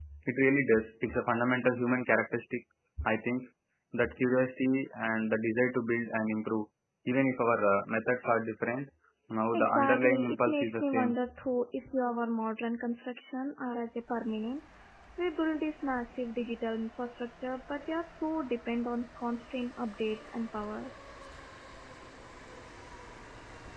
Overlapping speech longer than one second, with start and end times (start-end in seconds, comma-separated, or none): 9.5-11.1